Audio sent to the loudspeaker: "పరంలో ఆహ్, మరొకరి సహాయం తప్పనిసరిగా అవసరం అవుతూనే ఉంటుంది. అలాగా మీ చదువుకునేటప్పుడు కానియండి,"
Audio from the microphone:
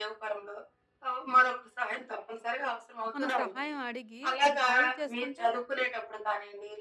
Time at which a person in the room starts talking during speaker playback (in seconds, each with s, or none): 3.1 s